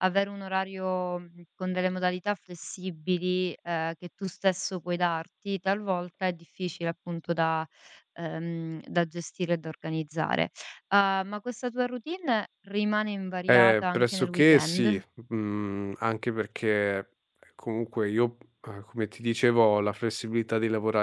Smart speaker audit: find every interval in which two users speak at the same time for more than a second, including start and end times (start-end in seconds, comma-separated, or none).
13.5-14.9